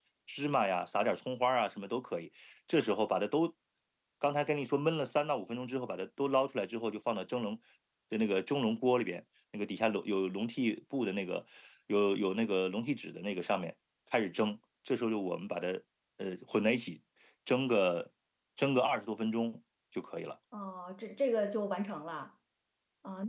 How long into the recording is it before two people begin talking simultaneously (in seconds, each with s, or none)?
none